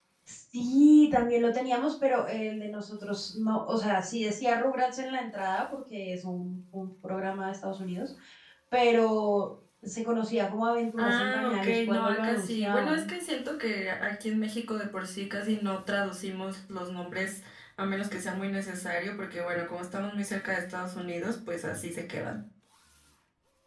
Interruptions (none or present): present